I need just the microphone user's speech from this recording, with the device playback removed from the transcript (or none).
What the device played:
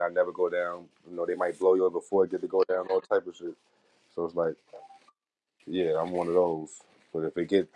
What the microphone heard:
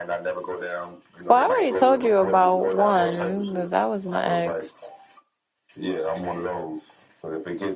Well, I already told you about one. That that was my ex,